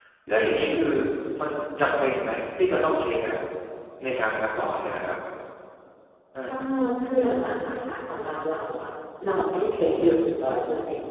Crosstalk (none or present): none